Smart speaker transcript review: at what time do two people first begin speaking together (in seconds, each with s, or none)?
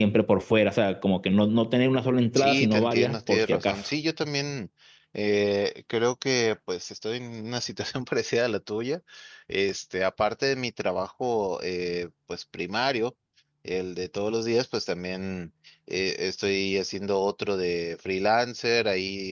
2.4 s